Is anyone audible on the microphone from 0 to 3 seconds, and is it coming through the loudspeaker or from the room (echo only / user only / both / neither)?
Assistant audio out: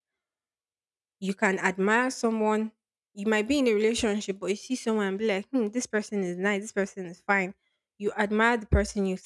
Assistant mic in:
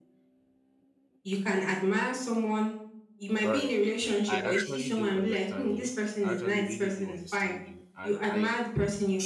echo only